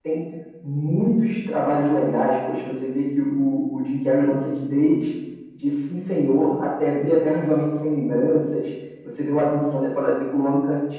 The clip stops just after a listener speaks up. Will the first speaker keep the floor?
Yes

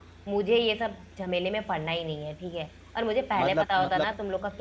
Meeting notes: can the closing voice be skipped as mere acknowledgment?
Yes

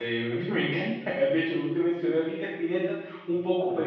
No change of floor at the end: Yes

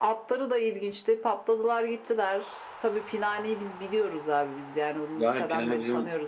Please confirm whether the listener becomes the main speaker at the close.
Yes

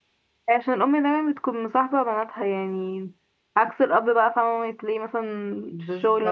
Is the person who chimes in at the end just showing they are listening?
Yes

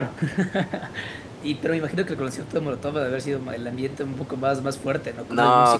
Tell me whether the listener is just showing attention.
No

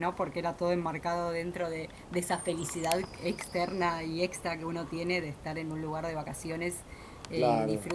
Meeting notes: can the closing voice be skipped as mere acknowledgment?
Yes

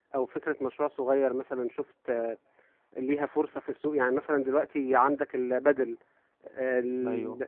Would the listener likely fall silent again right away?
Yes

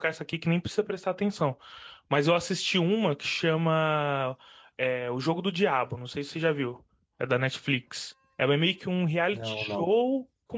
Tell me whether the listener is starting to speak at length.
No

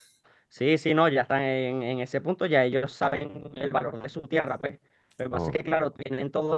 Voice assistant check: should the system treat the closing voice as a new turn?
No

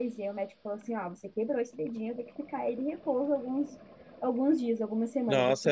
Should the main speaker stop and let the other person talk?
Yes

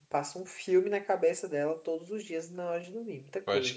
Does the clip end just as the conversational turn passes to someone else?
Yes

